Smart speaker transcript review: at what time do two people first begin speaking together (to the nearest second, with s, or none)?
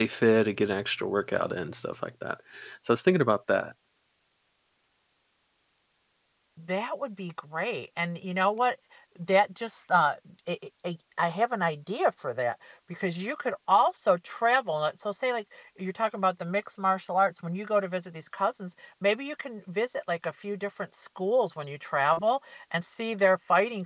none